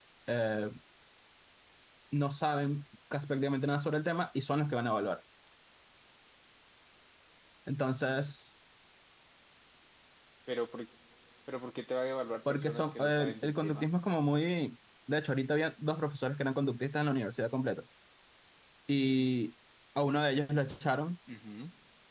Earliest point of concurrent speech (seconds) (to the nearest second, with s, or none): 12 s